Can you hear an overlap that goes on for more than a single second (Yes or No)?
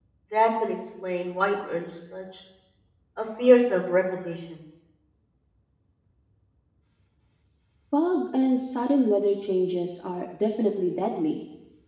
No